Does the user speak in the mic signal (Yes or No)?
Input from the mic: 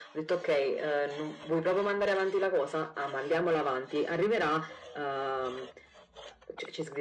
No